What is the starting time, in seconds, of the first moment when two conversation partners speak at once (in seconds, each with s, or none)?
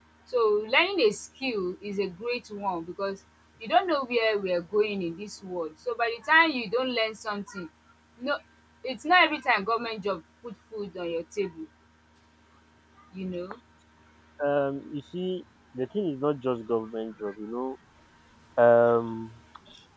none